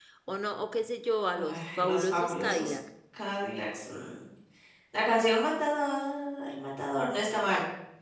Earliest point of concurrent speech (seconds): 1.4 s

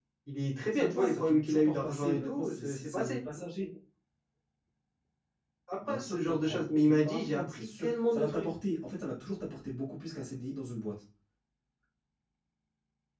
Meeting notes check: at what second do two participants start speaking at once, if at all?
0.7 s

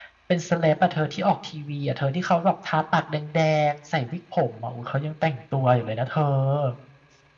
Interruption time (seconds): none

